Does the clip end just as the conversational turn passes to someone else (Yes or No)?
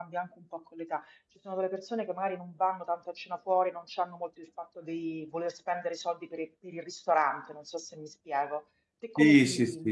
Yes